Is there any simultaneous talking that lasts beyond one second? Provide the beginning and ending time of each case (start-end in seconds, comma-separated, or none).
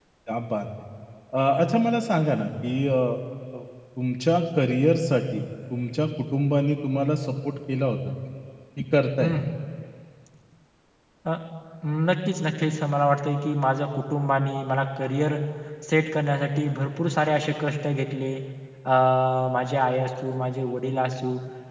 none